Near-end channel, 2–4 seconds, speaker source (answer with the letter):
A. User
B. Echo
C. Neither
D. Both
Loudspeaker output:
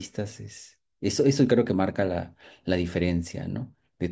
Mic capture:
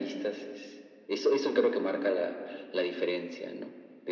B